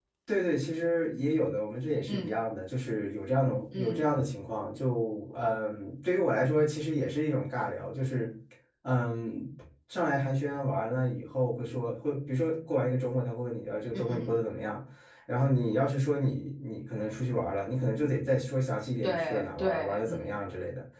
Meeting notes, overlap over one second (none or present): present